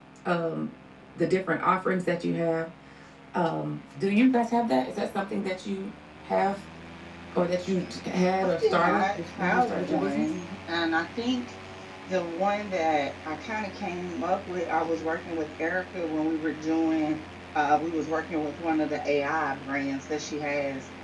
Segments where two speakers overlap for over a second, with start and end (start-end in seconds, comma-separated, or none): 8.6-10.3